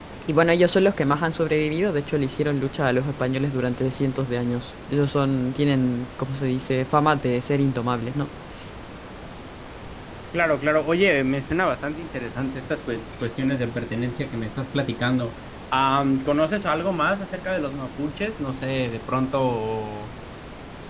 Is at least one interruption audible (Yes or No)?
No